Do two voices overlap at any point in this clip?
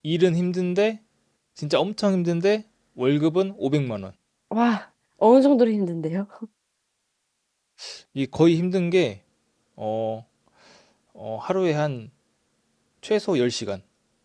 No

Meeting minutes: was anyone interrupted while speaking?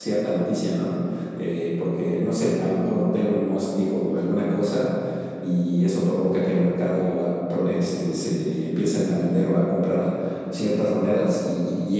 No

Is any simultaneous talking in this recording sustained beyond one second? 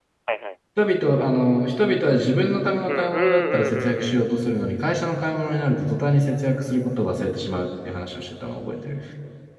Yes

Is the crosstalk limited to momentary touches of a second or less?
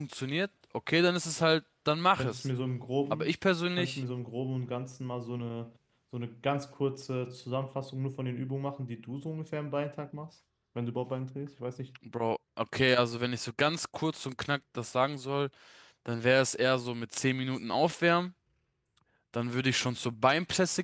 Yes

